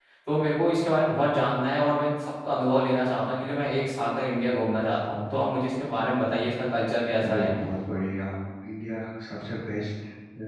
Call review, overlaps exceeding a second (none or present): none